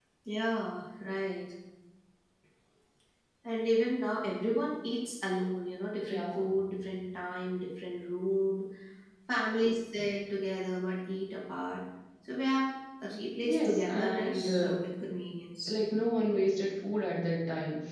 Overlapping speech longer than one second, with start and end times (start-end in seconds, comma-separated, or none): 13.4-14.7